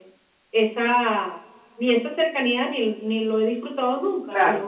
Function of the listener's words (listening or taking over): listening